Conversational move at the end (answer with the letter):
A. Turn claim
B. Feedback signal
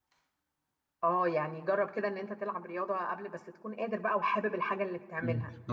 A